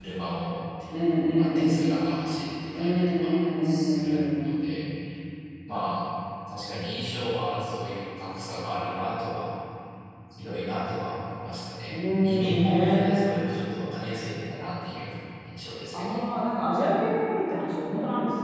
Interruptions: present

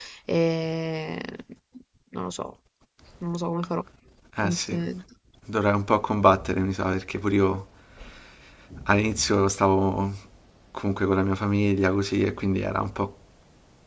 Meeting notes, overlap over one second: none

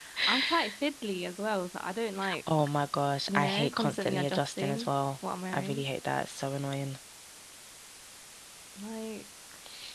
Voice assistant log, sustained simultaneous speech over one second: present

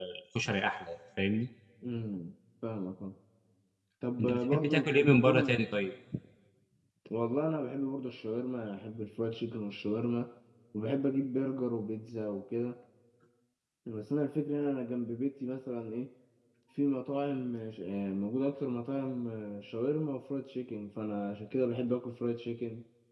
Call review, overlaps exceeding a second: present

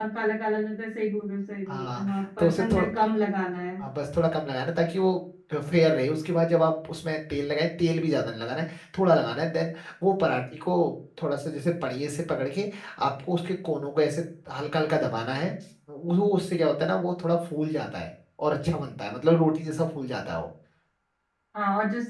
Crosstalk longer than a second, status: present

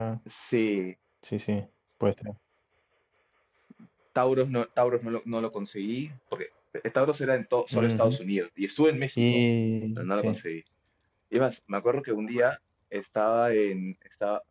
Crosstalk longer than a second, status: none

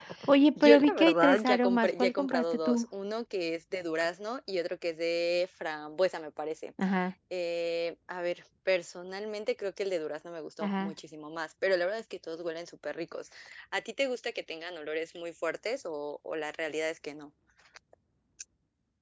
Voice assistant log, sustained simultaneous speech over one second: present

